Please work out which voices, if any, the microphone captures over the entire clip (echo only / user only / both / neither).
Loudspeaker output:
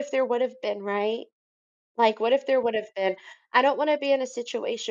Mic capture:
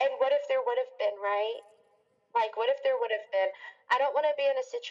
echo only